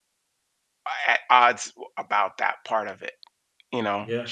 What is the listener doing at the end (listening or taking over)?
listening